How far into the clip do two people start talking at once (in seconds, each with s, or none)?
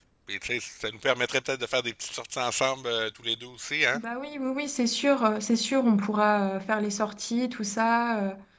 none